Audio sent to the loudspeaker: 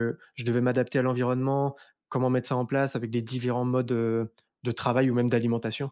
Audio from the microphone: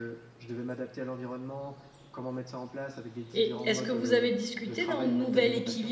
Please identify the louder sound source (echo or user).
user